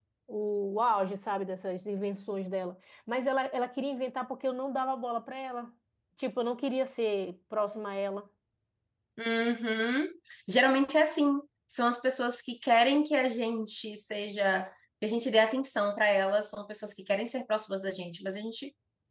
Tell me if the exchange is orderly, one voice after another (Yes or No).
Yes